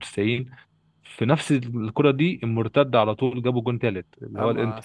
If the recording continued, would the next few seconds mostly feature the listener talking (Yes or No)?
Yes